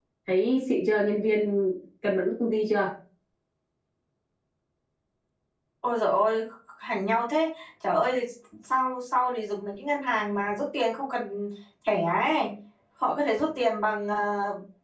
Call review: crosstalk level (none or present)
none